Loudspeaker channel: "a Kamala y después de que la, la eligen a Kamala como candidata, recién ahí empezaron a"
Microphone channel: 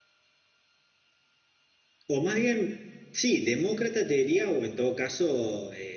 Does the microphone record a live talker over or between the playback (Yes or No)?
Yes